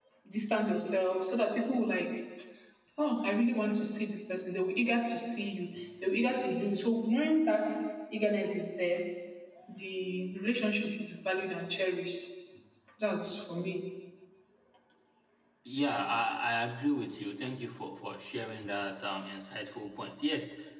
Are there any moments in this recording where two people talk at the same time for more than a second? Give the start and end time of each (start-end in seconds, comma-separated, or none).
none